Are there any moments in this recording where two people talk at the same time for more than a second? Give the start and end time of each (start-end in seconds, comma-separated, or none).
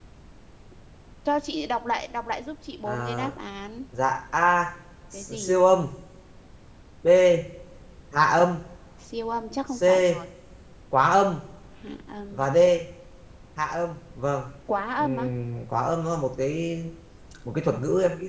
none